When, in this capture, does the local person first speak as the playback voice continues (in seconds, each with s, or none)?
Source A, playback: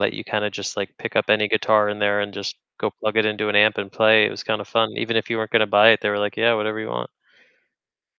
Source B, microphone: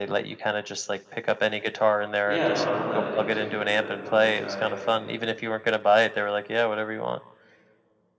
2.2 s